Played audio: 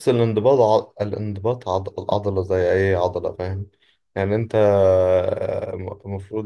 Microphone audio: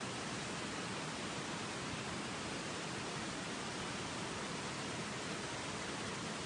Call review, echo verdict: none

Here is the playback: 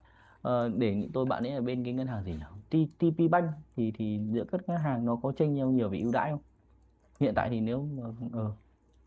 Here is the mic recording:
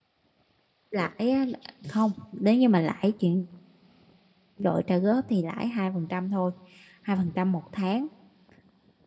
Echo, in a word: none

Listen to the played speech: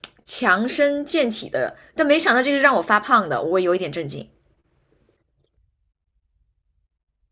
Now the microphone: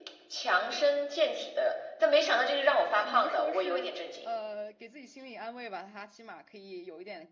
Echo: present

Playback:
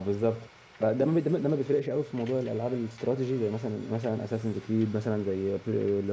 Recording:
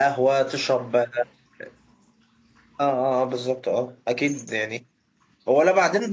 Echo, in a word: none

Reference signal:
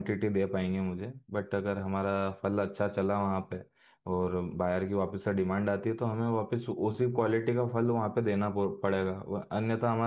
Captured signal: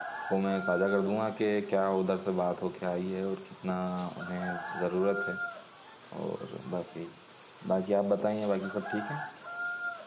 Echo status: none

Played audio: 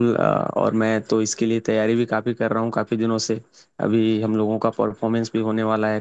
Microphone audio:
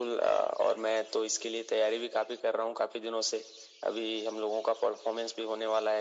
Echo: present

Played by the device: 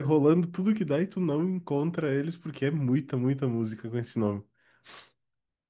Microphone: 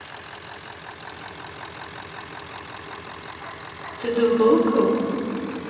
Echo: none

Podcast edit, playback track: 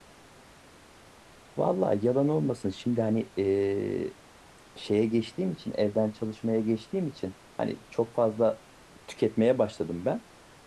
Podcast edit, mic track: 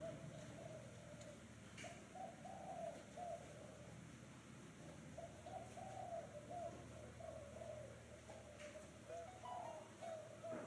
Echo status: none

